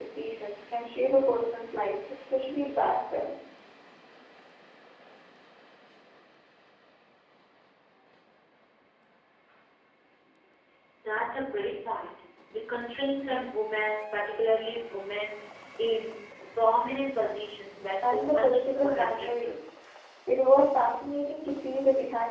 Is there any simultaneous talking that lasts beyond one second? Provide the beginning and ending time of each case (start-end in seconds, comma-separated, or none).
18.0-19.5